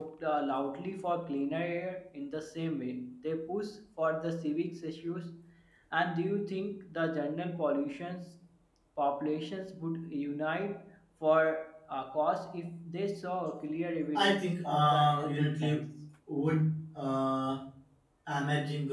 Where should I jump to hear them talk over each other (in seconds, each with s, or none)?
14.2 s